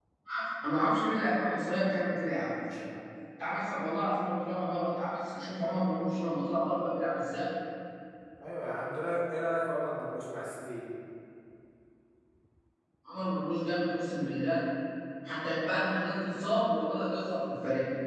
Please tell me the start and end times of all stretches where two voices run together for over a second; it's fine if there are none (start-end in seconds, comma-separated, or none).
none